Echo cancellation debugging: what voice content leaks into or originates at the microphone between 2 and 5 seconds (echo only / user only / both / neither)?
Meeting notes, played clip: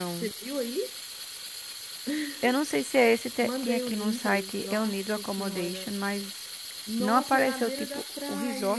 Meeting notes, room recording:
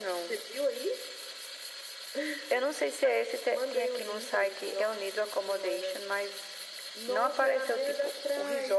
echo only